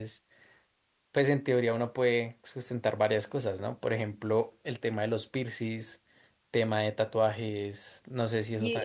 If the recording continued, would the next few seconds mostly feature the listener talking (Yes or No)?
Yes